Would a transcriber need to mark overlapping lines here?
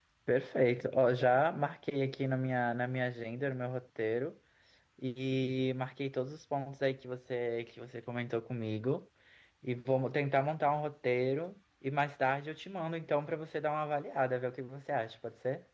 No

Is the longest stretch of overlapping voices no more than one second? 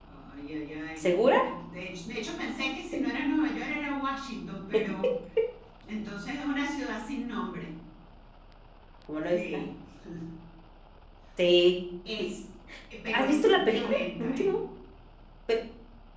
No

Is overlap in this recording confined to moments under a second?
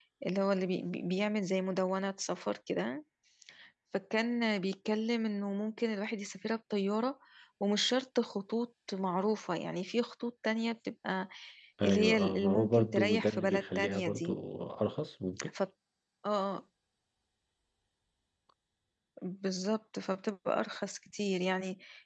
No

